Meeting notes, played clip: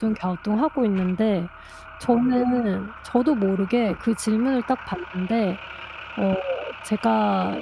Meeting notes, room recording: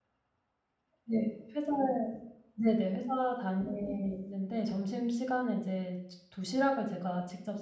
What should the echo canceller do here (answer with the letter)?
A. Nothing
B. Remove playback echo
A